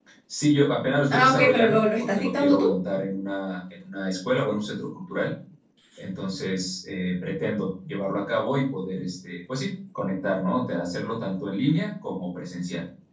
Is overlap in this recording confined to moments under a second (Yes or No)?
No